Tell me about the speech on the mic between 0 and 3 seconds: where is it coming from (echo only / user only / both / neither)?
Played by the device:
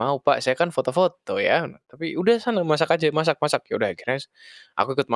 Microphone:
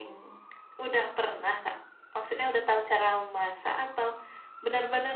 user only